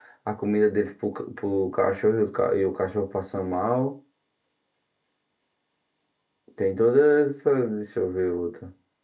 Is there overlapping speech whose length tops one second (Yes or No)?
No